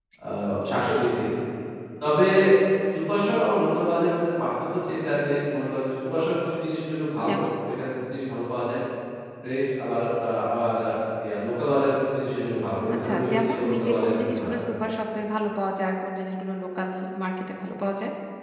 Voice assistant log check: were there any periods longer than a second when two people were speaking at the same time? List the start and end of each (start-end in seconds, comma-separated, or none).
13.0-14.6